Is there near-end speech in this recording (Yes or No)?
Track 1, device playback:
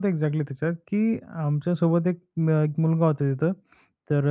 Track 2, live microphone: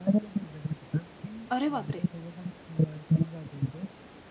Yes